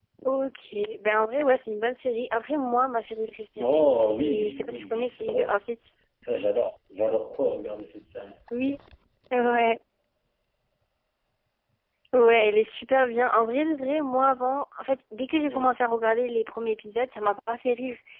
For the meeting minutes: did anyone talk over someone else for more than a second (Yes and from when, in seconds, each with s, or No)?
Yes, from 3.6 s